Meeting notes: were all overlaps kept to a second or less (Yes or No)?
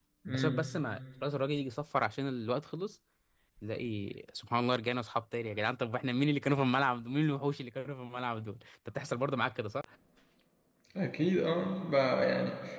Yes